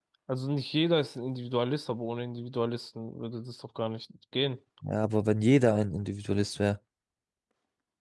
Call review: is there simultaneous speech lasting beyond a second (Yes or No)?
No